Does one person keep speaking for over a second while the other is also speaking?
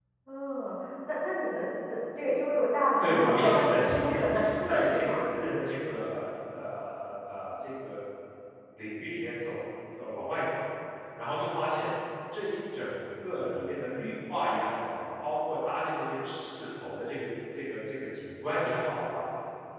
Yes, from 3.0 s

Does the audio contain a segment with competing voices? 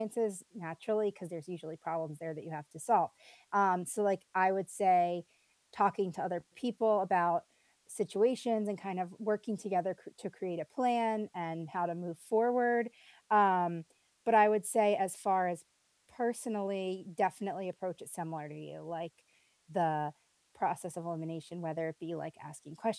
No

